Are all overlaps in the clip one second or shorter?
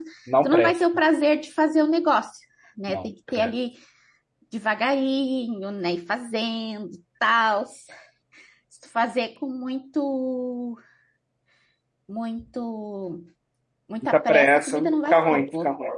No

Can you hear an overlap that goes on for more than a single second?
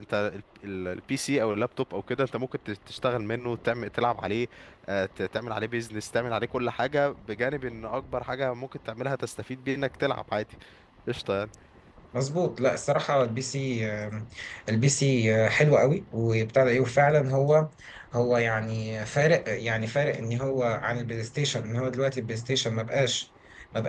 No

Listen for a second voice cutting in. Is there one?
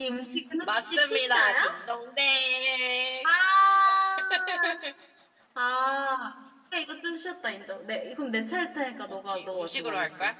Yes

